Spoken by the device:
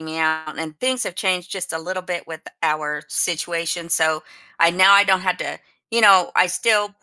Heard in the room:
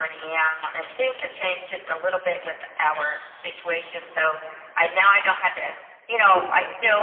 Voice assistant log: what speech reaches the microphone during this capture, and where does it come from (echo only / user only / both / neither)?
both